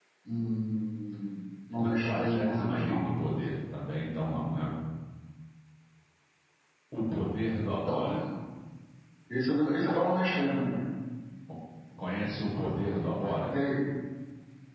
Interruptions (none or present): present